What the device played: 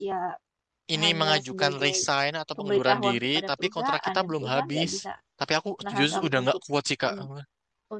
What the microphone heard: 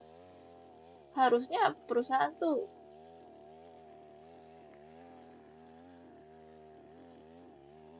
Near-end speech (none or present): present